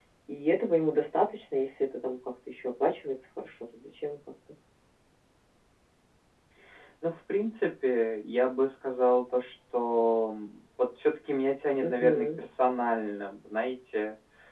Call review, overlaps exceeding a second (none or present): none